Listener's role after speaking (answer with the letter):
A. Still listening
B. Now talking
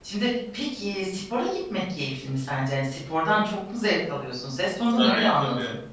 B